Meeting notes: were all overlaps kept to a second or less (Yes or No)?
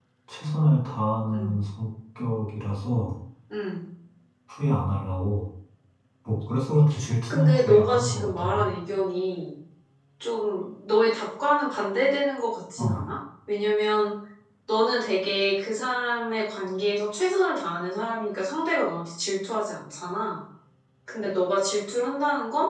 No